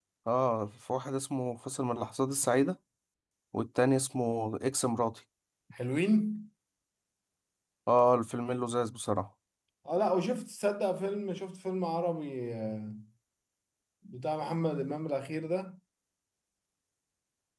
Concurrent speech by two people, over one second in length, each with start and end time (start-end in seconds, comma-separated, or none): none